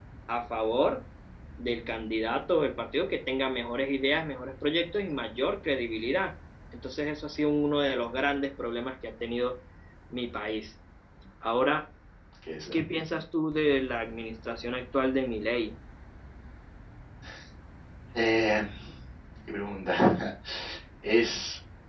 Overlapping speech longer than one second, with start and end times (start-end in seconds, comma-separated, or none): none